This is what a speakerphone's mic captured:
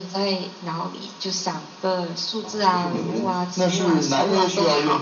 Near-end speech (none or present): none